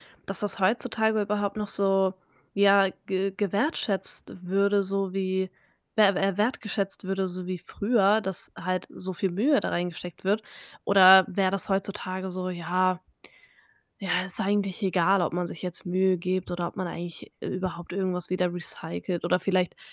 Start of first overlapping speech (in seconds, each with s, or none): none